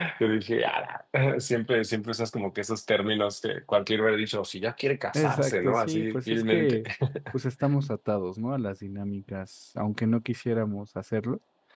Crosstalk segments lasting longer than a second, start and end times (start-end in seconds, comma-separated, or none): 5.1-6.8